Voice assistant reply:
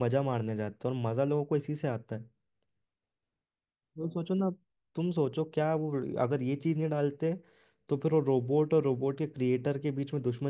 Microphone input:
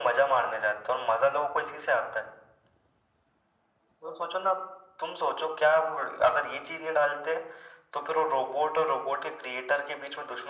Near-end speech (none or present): none